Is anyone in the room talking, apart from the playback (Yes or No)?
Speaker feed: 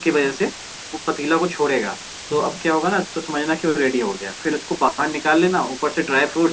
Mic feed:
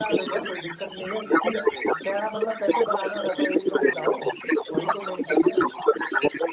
Yes